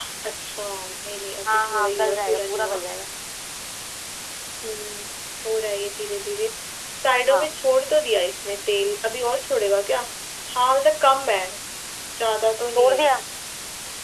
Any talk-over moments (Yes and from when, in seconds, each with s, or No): Yes, from 1.5 s